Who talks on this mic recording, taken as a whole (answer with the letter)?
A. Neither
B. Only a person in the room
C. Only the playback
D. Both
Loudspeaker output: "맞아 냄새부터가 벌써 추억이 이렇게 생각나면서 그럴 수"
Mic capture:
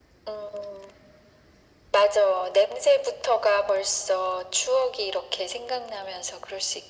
C